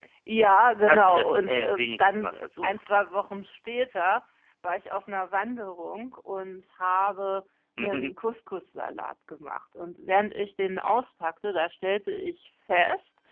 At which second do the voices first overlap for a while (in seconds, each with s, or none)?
0.8 s